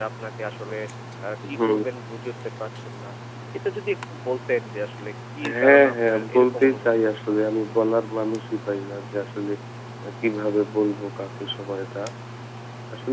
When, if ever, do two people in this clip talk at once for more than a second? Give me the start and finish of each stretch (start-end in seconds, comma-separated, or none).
5.5-7.3